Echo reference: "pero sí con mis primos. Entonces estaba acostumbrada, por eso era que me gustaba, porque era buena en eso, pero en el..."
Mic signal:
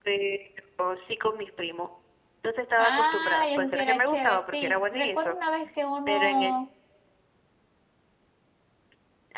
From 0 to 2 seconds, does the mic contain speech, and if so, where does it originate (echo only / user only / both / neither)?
echo only